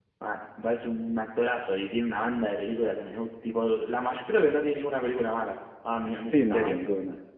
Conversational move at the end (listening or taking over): taking over